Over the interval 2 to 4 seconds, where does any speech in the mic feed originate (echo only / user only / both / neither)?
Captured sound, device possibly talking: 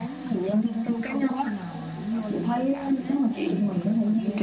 both